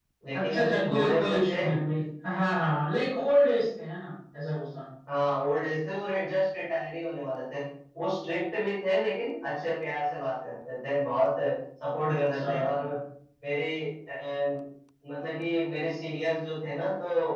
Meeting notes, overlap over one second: present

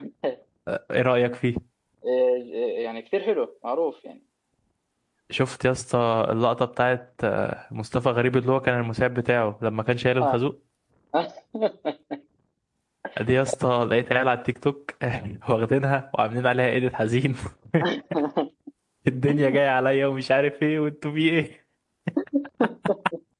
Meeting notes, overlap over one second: none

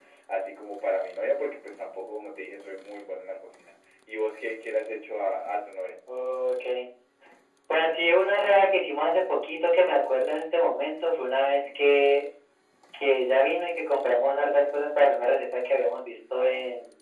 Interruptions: none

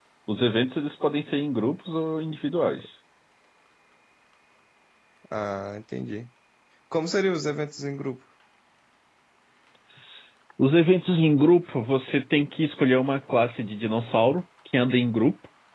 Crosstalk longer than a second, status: none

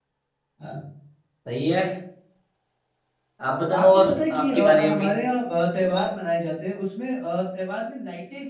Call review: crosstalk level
present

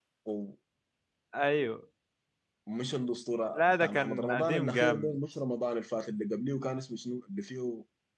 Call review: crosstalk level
present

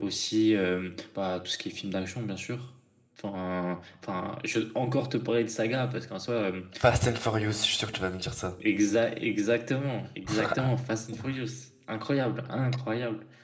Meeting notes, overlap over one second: none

